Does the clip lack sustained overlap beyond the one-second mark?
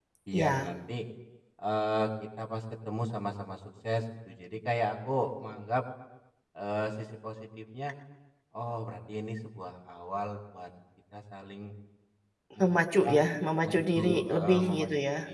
No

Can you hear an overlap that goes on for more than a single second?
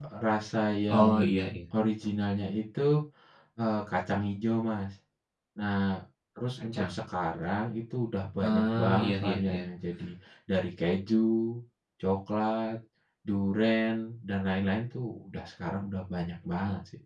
Yes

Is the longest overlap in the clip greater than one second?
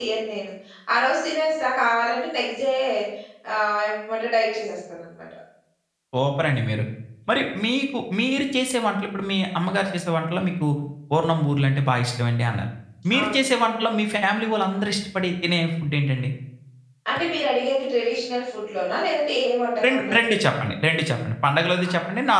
No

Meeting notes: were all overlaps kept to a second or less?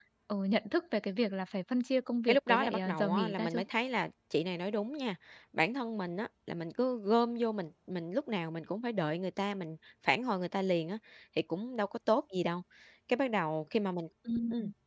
No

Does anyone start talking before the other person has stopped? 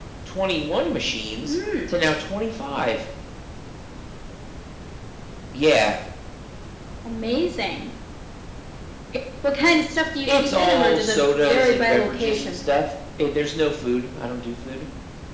Yes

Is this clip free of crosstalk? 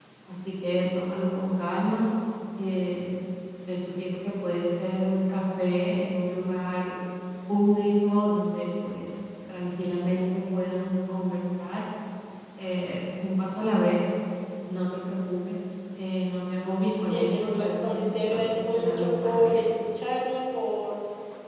No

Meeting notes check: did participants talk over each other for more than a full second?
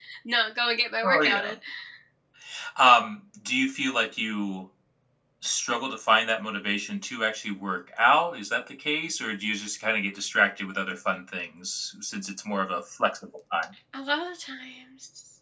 No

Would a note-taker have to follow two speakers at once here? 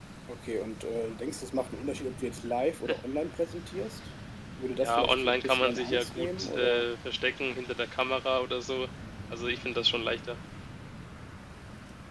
Yes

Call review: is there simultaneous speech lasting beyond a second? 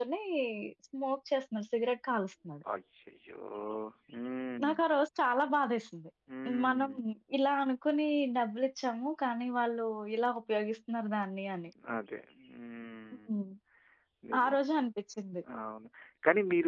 No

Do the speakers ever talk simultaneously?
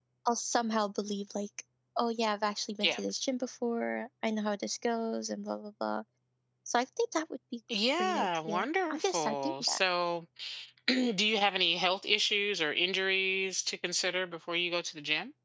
Yes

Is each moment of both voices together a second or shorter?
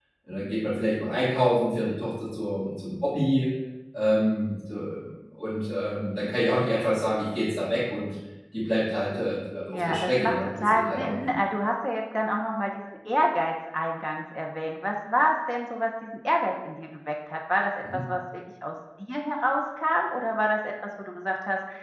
No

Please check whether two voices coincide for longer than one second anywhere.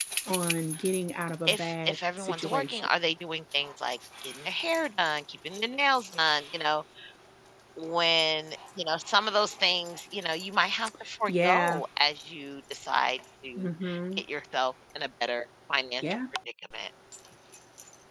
Yes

